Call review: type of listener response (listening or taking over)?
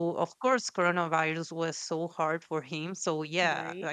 listening